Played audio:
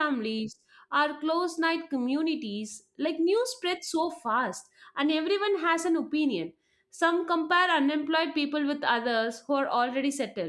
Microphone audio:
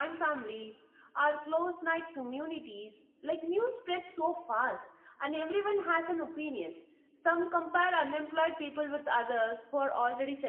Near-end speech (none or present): none